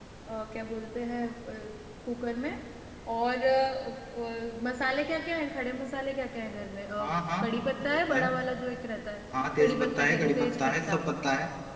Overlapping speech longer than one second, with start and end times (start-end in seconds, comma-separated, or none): 9.6-11.0